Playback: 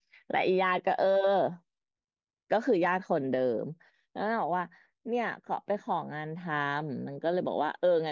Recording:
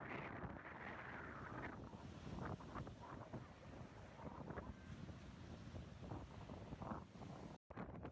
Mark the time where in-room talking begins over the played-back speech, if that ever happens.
none

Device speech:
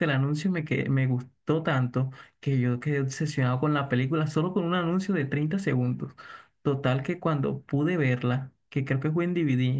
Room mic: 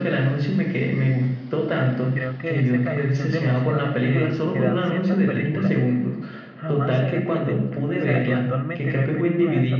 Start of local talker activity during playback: 2 s

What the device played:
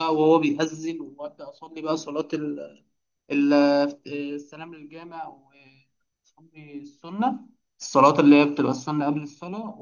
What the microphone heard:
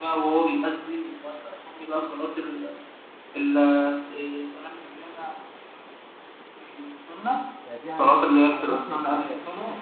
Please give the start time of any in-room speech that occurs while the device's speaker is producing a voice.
8 s

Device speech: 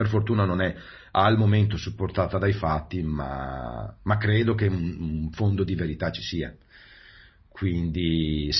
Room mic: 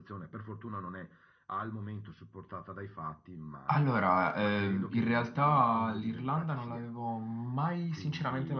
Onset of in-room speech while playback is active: 4 s

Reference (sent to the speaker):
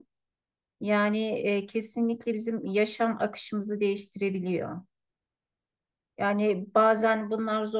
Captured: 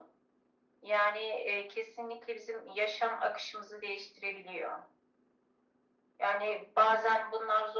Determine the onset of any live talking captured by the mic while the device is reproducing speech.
none

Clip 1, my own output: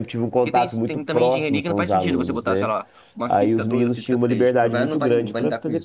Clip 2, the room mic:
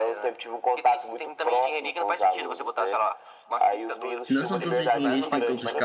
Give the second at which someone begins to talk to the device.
4 s

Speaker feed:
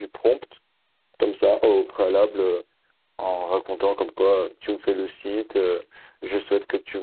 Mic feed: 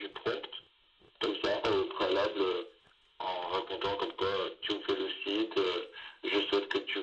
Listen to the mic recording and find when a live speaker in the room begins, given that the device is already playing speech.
none

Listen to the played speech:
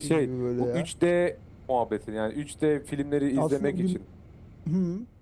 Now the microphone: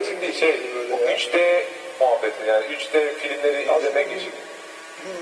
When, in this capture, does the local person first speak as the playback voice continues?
none

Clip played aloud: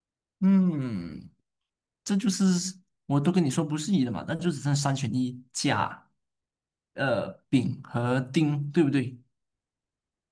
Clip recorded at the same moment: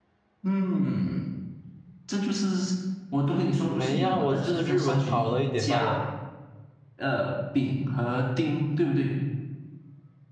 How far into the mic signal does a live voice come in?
4 s

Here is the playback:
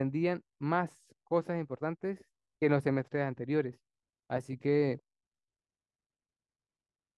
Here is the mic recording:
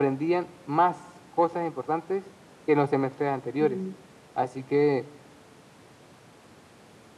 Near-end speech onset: 4 s

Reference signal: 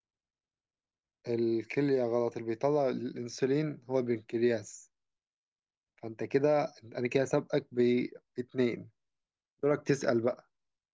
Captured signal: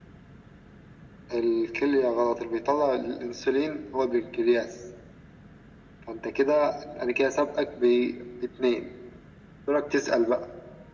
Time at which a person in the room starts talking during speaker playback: none

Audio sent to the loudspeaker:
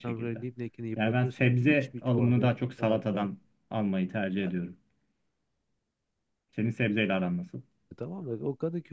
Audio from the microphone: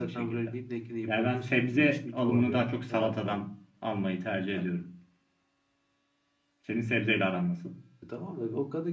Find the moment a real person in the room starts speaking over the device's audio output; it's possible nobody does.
none

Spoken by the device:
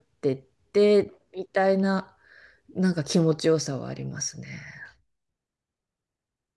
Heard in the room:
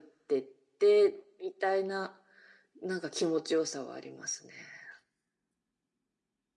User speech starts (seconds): none

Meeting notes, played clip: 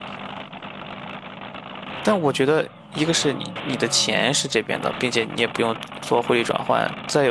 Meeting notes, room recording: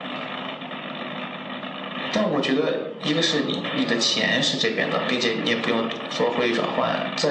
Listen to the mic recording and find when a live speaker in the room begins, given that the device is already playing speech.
none

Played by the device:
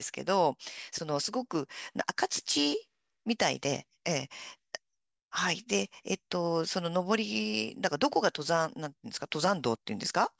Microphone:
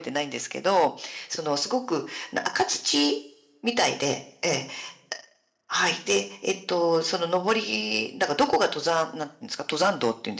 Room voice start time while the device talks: none

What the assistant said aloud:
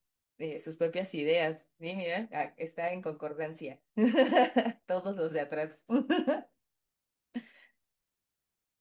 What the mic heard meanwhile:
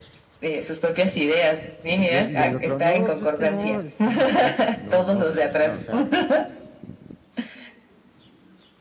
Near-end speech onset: 2 s

